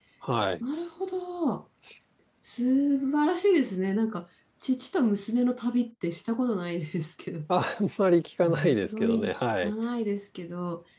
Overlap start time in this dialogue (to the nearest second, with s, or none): 8 s